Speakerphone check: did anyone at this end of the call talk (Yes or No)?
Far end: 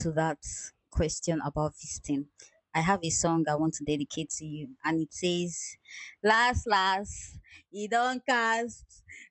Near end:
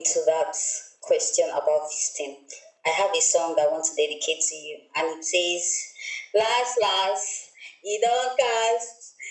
No